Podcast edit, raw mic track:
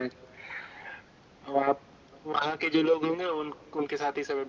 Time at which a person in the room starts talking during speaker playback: none

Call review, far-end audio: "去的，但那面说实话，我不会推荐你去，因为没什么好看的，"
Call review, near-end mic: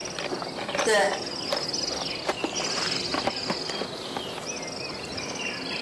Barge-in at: 0.8 s

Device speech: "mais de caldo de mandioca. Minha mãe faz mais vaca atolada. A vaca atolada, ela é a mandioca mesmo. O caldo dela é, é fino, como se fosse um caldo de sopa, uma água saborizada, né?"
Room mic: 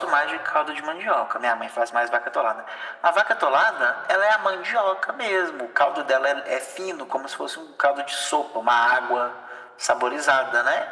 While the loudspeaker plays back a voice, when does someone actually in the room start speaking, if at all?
none

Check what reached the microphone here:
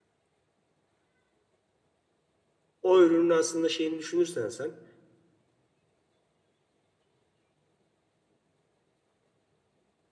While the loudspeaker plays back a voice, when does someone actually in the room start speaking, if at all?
2.8 s

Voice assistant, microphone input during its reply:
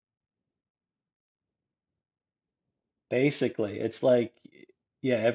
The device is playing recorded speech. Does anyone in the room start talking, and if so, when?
3.1 s

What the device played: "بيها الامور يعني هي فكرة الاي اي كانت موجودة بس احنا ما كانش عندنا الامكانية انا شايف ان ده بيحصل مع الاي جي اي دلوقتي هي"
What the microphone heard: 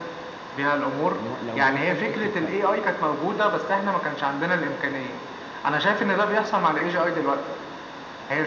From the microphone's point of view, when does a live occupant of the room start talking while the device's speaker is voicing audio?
1.2 s

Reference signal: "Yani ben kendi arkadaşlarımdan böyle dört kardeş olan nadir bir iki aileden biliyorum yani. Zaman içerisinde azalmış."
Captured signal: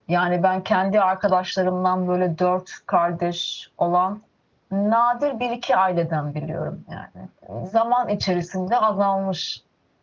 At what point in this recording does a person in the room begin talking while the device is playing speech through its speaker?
none

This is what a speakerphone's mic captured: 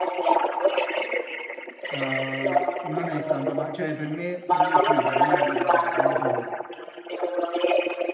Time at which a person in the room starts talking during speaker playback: 1.9 s

